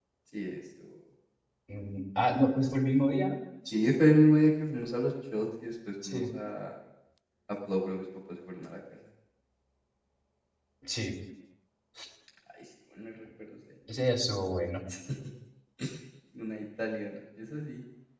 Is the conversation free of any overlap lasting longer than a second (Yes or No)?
Yes